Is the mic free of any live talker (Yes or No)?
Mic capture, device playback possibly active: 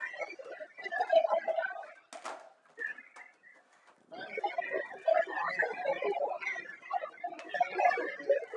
Yes